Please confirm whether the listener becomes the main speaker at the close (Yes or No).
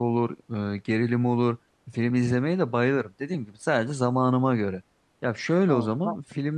No